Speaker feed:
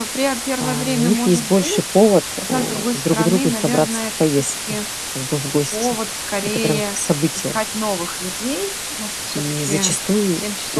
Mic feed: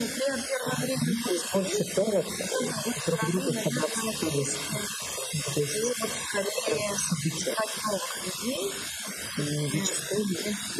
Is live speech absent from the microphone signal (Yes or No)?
Yes